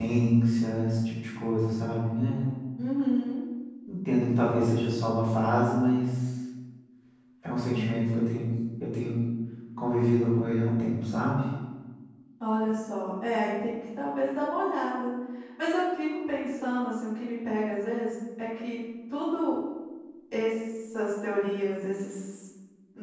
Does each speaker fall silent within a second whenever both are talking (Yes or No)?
Yes